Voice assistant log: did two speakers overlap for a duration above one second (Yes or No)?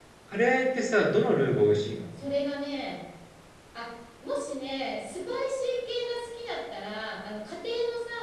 No